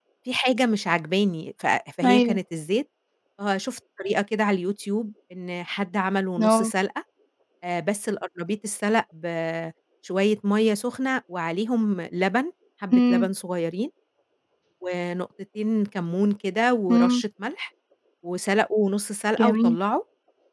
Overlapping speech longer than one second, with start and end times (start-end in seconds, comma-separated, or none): none